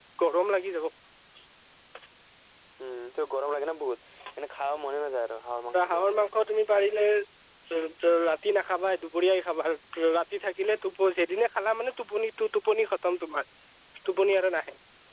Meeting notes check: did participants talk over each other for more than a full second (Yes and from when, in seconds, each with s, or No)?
No